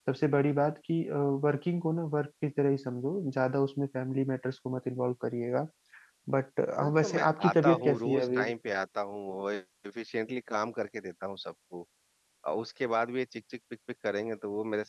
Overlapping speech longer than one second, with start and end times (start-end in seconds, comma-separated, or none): 7.0-8.4